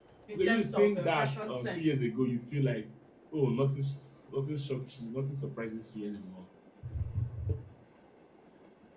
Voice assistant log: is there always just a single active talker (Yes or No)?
No